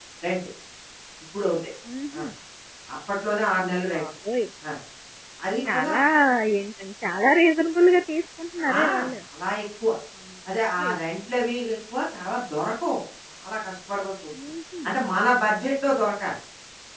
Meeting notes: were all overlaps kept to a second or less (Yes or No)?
Yes